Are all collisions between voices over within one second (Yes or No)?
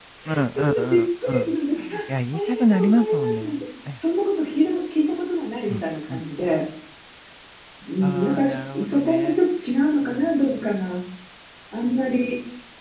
No